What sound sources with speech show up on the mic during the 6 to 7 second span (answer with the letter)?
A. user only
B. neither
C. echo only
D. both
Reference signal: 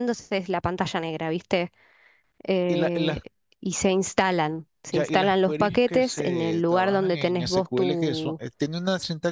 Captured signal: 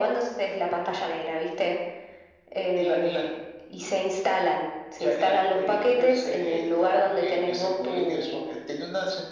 C